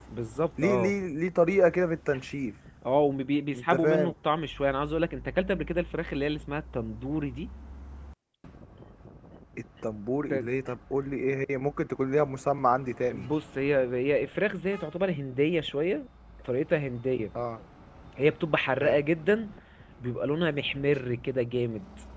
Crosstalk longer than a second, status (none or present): none